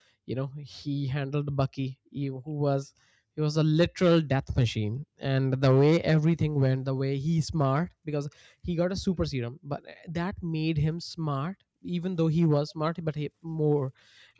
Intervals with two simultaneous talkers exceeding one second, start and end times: none

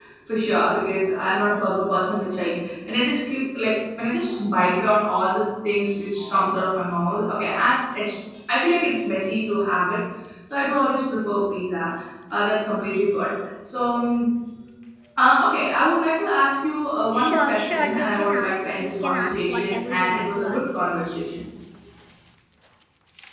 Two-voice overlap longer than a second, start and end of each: 17.1-20.6

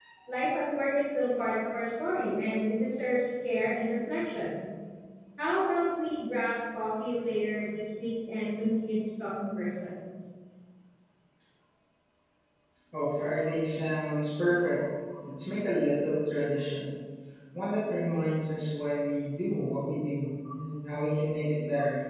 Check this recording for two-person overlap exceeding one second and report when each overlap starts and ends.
none

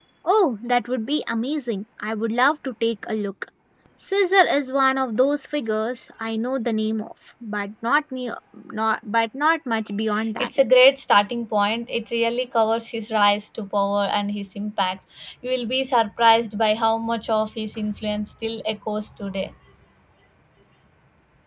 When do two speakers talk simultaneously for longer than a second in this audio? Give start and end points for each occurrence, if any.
none

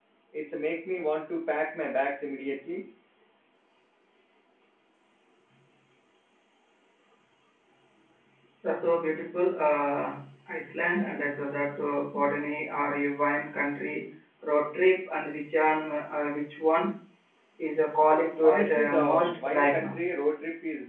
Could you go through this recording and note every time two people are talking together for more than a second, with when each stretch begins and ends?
18.4-20.0

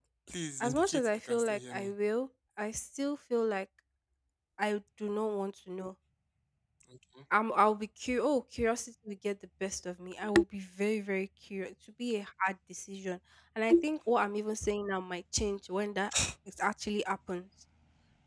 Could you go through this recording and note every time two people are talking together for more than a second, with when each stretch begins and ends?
0.6-1.9

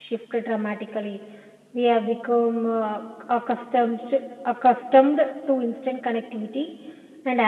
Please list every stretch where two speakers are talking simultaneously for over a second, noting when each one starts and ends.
none

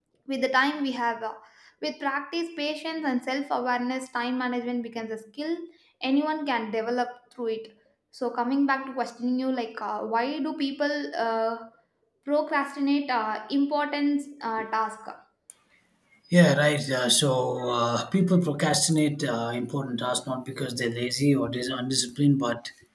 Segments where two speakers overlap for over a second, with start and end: none

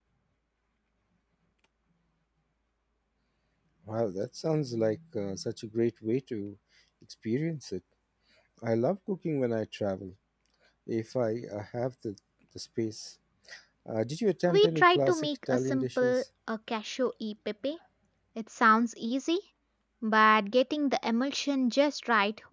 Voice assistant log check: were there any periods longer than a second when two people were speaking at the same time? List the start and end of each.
14.4-16.2

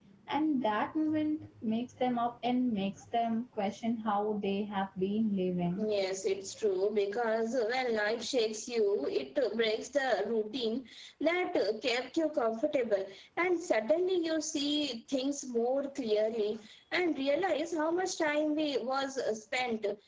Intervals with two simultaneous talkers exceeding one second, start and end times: none

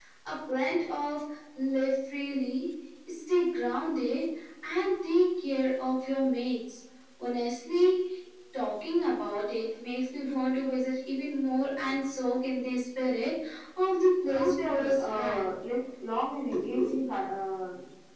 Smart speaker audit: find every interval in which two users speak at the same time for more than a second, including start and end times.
14.3-15.5

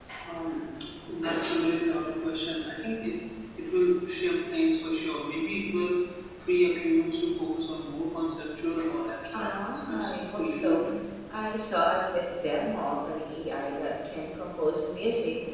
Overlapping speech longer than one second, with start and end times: 9.4-10.8

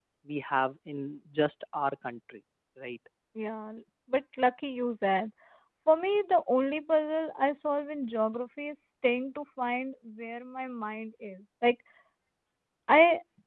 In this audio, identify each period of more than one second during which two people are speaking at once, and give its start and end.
none

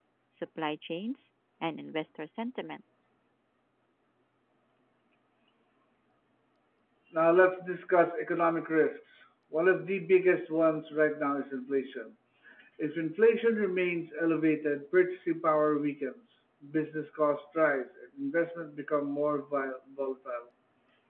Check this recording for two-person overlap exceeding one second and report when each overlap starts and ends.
none

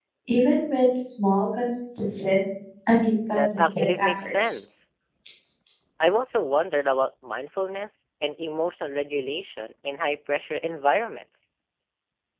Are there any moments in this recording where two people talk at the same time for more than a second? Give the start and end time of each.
3.4-4.6

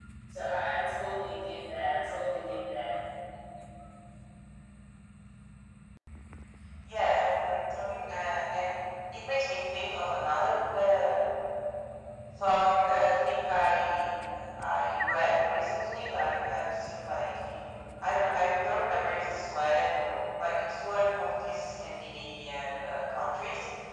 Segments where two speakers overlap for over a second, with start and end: none

